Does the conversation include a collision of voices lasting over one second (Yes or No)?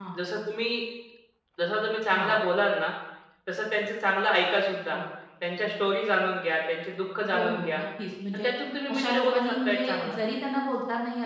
Yes